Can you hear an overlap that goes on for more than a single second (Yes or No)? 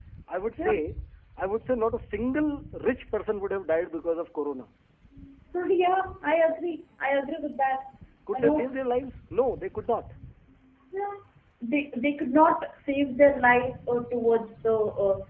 No